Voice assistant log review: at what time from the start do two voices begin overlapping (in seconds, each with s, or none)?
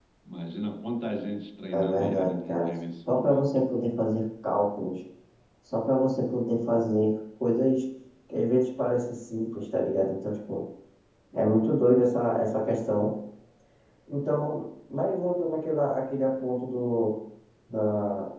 1.7 s